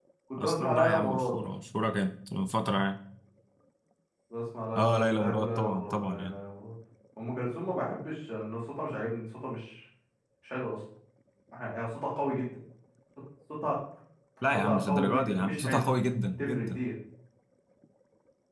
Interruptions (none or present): present